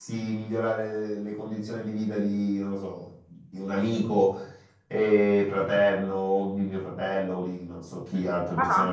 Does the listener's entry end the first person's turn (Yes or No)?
No